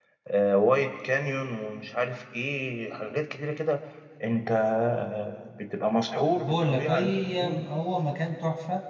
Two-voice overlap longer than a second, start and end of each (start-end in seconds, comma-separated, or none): 6.4-7.6